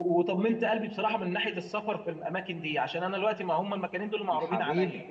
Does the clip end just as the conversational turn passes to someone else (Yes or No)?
No